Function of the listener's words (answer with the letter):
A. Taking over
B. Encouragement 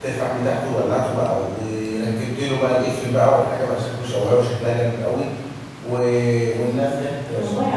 B